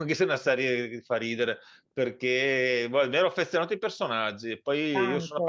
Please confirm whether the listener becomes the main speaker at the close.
No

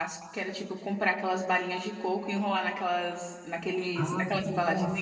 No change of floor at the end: No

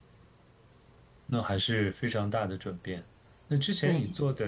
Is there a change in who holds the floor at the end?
No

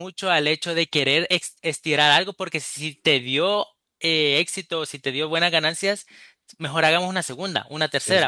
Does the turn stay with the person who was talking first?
Yes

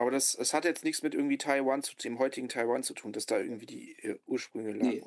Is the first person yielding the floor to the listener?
Yes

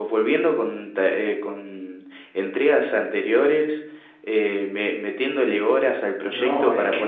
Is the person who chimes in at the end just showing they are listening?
No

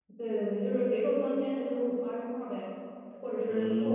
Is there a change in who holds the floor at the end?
Yes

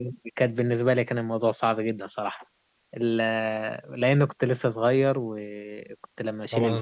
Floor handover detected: Yes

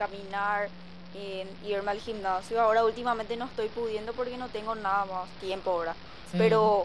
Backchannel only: Yes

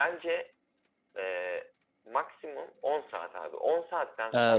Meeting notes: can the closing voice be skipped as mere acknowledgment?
No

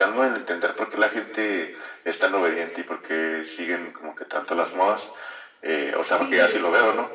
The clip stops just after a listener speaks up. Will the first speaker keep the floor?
Yes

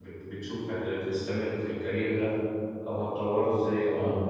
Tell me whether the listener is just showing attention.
Yes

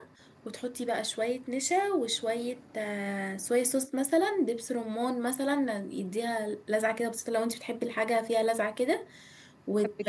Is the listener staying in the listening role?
Yes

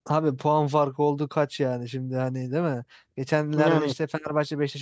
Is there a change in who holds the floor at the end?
No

